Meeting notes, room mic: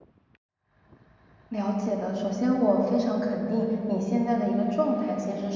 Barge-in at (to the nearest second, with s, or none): 1 s